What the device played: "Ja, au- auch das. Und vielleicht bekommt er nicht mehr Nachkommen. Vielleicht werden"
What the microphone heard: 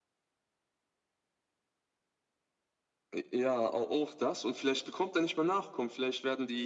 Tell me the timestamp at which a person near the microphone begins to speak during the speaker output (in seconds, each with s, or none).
none